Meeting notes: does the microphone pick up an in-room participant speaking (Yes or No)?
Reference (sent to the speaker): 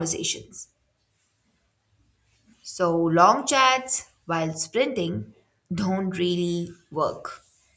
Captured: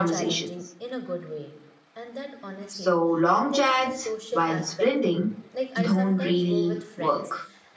Yes